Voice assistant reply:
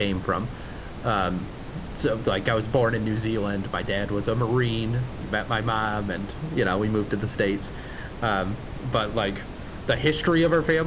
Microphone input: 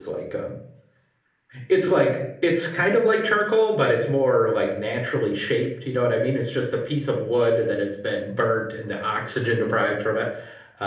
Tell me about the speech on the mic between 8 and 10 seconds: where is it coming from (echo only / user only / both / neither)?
user only